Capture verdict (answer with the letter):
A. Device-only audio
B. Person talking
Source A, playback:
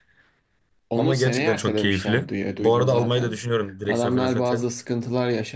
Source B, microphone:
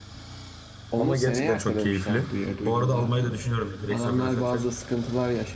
A